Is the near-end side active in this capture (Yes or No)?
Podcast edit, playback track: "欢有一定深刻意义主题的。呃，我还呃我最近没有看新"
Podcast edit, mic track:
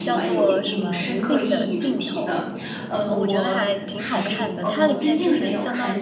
Yes